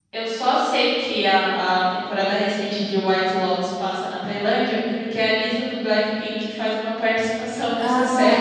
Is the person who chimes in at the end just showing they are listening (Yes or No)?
No